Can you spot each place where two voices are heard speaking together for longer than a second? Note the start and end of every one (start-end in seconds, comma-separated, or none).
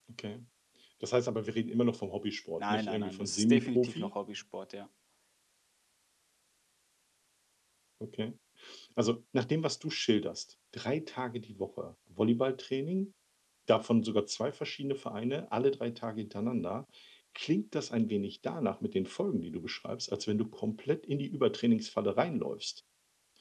2.6-4.1